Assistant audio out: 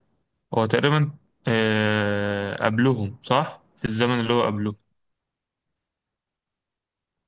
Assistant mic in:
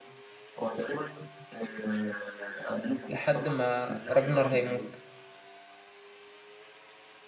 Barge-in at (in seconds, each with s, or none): 3.1 s